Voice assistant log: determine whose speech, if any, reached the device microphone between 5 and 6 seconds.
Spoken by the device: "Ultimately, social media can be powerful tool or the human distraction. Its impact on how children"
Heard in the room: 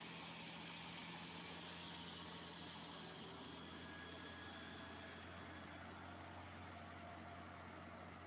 neither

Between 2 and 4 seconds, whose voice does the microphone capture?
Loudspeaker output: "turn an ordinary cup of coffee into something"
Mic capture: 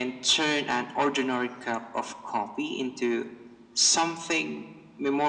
echo only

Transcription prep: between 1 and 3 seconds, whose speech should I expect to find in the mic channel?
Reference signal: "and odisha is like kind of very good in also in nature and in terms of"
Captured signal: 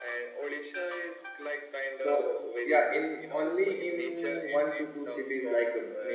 both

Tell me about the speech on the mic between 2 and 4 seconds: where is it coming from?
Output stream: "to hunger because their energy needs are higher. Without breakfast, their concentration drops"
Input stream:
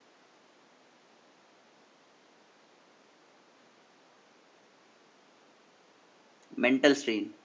neither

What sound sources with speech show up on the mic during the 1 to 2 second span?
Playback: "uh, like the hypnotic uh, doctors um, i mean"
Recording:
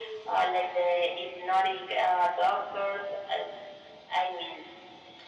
echo only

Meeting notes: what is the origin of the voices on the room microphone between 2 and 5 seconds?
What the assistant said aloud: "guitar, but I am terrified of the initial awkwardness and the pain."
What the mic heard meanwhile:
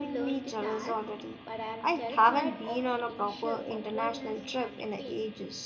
both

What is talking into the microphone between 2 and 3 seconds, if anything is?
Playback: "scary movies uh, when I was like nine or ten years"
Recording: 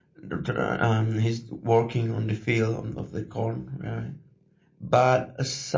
user only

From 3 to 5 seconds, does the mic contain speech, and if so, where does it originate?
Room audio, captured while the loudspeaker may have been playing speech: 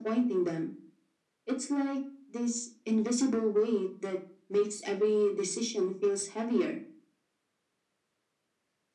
echo only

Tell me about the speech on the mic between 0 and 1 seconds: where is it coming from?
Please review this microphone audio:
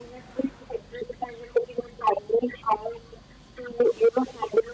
echo only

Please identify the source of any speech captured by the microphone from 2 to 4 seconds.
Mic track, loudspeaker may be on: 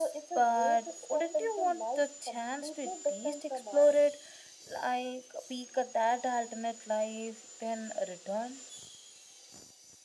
echo only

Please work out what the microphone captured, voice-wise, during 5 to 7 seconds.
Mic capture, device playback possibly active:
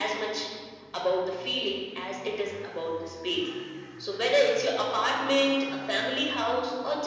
echo only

